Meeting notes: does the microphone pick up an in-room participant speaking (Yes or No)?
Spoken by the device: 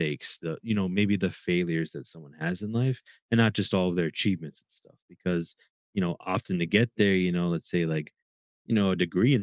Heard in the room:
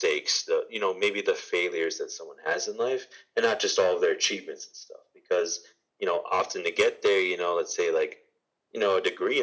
No